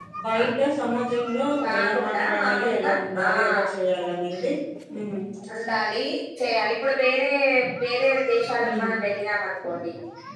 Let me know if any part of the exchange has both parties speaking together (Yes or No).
Yes